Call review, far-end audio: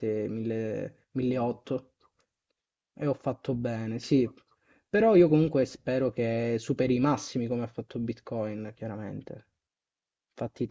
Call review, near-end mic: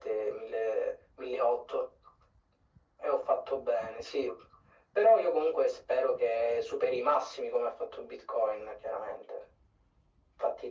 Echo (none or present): present